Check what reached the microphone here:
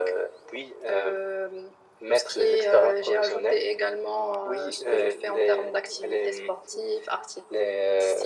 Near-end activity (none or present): none